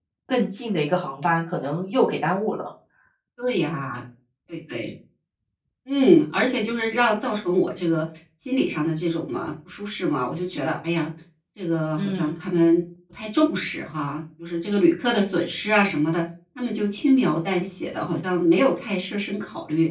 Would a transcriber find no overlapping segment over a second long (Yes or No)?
Yes